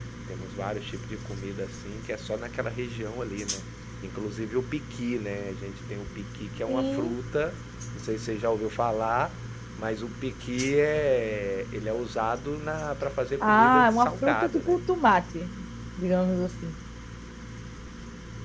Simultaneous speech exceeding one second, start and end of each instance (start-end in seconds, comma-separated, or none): 13.4-14.8